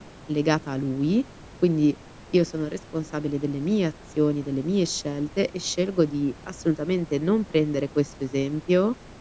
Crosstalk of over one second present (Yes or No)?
No